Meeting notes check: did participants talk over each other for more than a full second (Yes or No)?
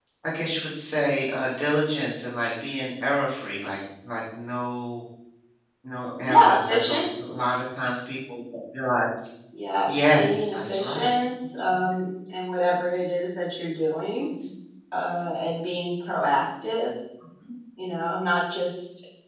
Yes